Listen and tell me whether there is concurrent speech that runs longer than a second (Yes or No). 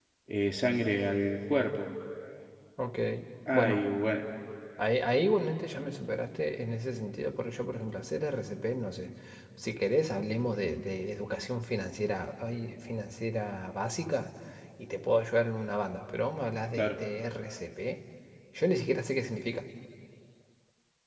No